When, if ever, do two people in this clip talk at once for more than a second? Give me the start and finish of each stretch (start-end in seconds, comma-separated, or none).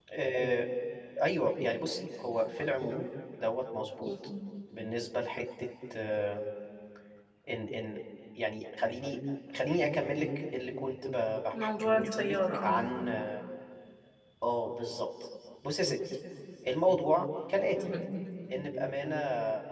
11.5-12.8